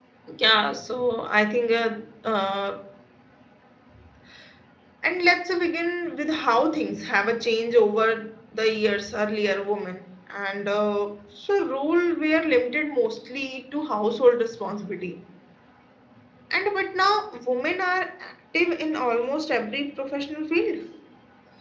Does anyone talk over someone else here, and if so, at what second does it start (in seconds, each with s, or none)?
none